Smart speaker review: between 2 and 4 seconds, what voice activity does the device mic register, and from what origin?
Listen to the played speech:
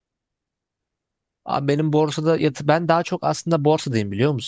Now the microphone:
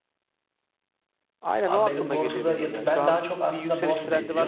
both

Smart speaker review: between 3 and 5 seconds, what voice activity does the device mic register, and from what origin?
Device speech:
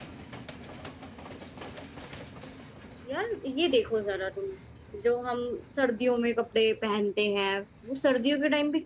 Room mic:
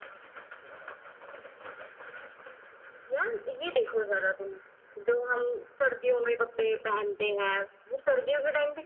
echo only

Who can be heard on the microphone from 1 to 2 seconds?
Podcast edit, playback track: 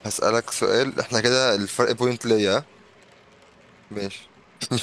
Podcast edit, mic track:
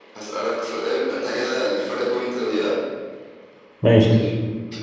echo only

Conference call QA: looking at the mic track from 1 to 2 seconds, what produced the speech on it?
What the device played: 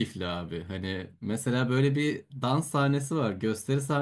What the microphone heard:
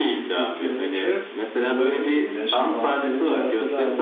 both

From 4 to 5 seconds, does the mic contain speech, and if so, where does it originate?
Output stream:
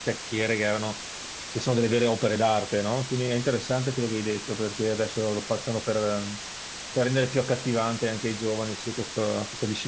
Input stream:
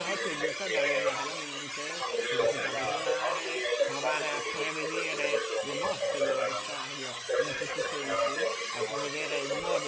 both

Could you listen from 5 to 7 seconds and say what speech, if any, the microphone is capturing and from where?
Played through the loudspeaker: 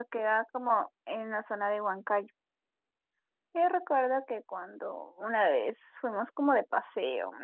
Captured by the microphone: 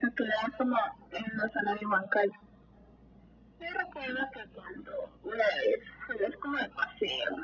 echo only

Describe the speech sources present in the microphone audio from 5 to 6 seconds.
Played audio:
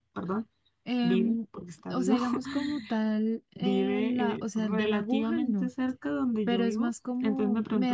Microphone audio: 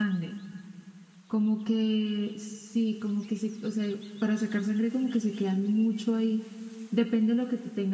user only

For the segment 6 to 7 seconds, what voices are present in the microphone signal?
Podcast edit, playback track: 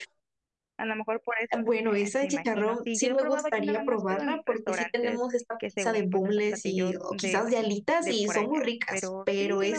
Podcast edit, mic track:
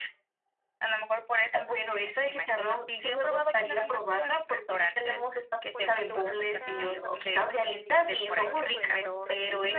both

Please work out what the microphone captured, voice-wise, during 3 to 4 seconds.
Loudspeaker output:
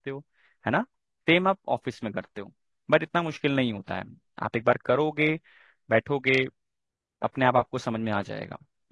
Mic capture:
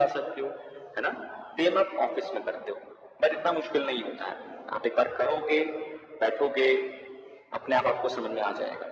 echo only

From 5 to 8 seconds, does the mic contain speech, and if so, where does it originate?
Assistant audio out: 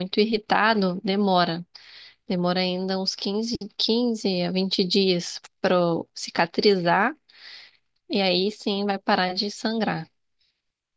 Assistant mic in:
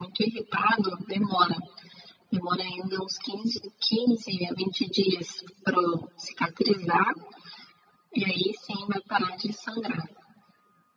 echo only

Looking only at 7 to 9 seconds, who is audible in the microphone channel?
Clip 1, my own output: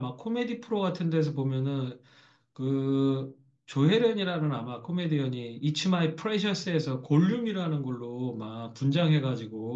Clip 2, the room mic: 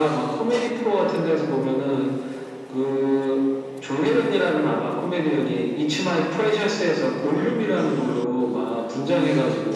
echo only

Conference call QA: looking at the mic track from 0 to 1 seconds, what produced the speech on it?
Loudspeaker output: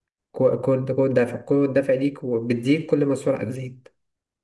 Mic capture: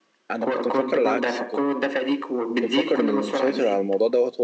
both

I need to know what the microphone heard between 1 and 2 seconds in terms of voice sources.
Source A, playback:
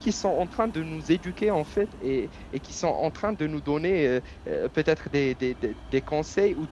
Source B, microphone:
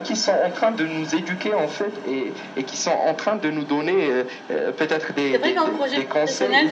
echo only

